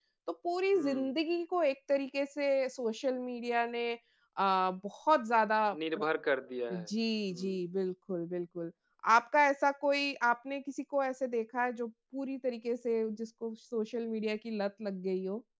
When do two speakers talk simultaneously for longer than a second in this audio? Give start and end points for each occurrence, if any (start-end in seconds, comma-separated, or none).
none